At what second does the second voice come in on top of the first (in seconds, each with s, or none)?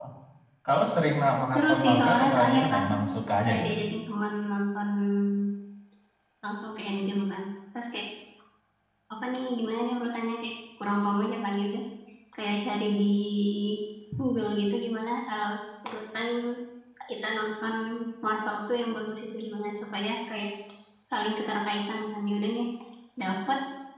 1.5 s